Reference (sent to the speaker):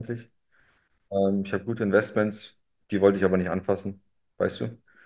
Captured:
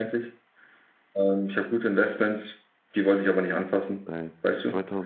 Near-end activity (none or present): present